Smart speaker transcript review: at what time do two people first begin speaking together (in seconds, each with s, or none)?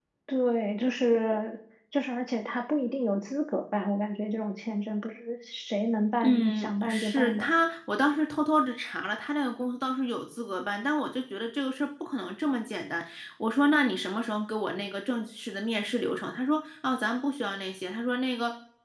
6.2 s